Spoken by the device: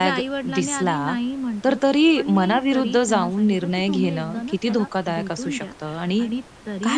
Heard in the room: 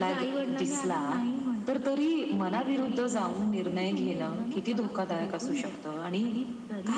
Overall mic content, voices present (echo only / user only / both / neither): echo only